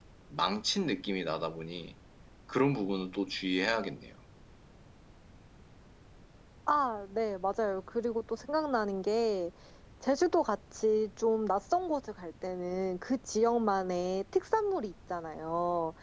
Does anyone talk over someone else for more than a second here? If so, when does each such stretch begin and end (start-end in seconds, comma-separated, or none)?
none